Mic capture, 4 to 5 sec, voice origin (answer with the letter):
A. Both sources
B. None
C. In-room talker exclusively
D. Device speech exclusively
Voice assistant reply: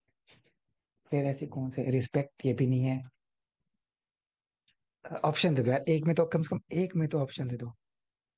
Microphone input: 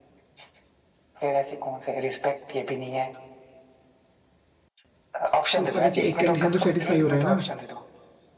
B